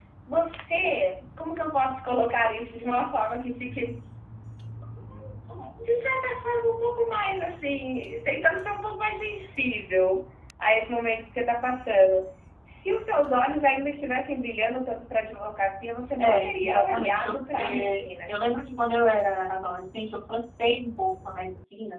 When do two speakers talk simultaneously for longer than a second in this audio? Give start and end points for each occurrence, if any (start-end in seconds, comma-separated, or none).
16.2-18.4